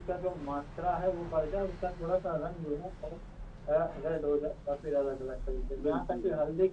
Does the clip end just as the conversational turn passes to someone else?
No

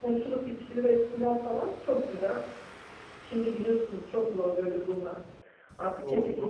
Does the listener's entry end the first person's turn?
No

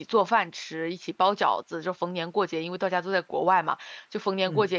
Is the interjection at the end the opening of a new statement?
No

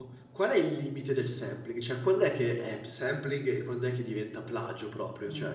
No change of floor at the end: No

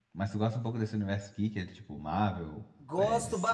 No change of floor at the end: No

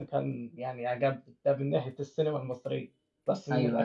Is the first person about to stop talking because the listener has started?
No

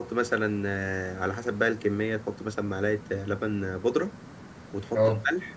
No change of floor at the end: Yes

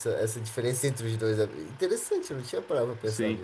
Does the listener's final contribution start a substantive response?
Yes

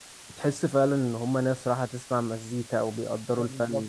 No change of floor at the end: No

